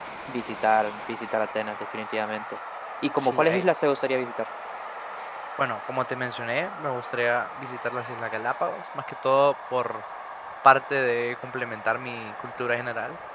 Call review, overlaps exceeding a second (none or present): none